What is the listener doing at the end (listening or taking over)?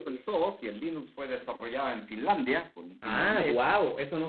taking over